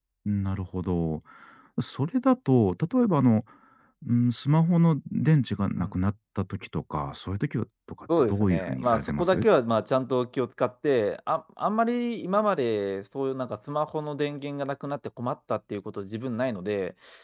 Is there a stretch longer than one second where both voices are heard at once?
Yes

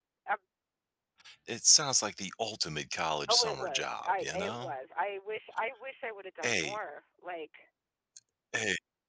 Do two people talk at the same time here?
Yes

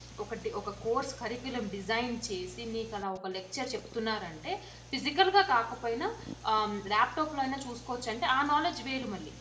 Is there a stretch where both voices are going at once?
No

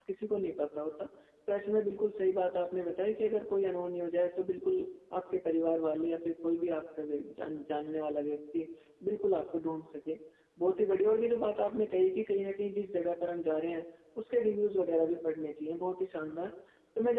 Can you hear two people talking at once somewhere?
No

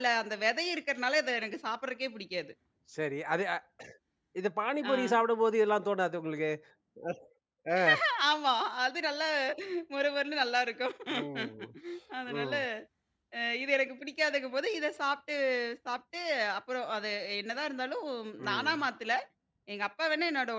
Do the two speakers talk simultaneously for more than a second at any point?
No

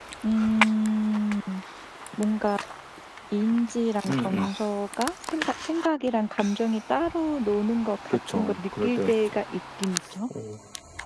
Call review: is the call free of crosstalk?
No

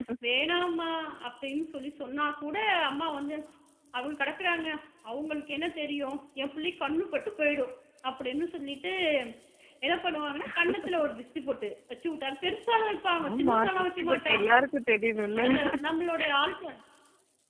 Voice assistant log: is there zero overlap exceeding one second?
No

